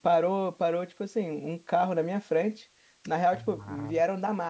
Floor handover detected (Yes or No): No